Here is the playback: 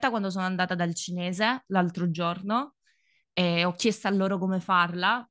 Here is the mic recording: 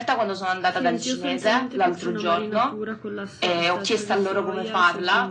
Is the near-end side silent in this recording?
No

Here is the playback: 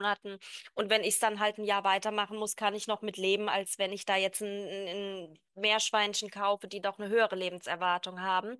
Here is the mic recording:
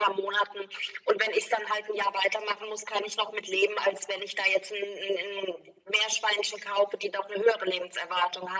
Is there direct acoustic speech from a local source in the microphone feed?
No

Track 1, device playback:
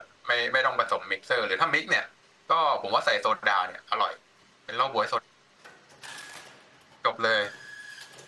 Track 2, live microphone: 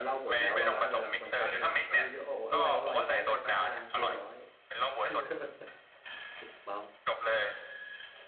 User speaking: Yes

